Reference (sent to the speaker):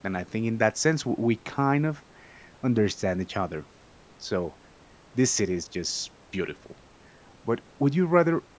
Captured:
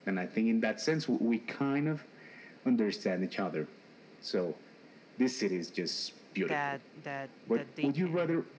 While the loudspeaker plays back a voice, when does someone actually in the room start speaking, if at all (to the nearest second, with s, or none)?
6 s